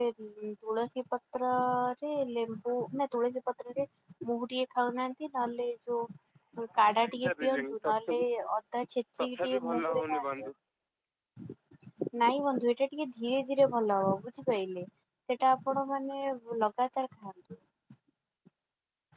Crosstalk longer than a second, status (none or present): present